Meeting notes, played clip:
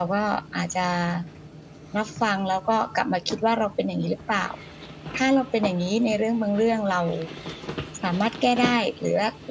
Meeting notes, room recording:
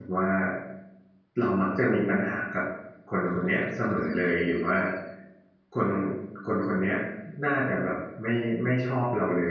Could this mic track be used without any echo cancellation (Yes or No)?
Yes